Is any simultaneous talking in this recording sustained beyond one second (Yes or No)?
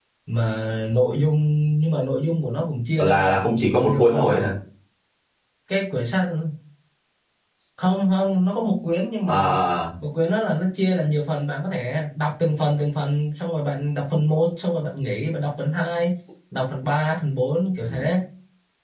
Yes